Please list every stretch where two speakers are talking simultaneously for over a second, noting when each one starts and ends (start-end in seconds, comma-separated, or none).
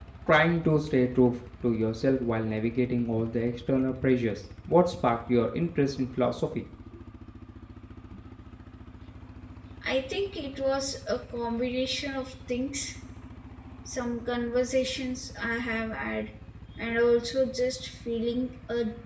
none